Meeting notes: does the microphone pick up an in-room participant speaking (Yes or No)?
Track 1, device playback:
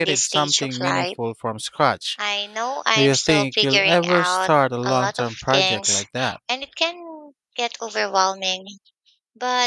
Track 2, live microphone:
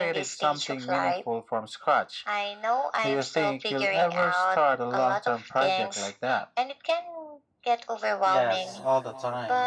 Yes